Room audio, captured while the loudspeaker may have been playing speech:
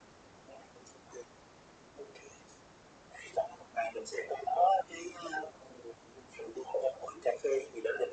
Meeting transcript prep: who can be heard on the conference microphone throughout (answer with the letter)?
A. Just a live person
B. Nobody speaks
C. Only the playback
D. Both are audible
C